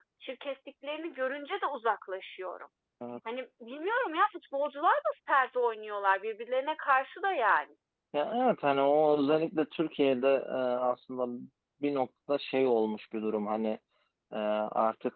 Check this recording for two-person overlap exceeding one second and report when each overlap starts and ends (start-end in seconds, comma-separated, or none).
none